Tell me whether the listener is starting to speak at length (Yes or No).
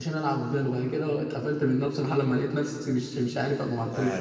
Yes